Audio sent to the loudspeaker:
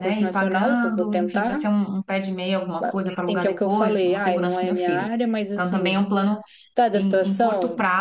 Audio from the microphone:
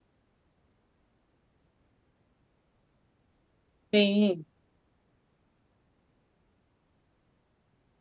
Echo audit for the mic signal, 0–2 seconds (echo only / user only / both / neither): neither